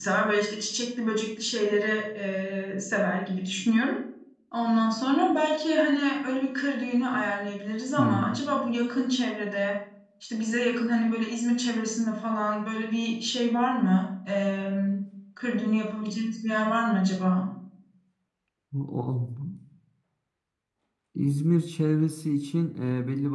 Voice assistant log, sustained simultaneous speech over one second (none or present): none